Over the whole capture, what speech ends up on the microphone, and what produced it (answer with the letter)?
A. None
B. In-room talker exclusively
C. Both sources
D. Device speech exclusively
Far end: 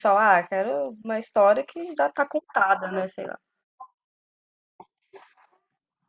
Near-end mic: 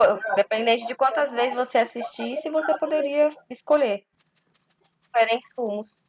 C